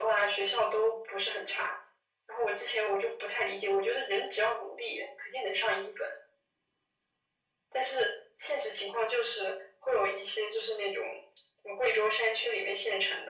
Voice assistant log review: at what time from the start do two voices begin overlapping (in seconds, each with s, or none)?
none